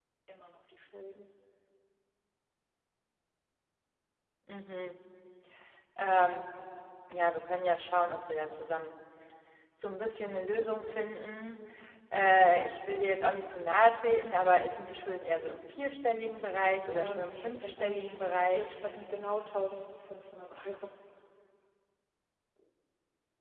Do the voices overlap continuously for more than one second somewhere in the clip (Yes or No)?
Yes